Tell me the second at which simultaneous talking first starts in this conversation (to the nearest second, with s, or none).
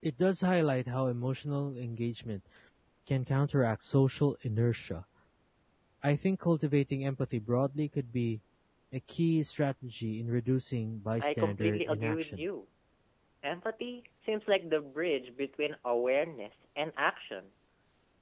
11 s